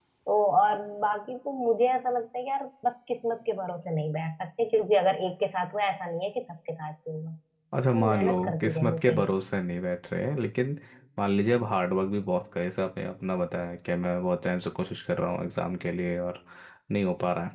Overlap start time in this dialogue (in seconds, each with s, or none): 7.9 s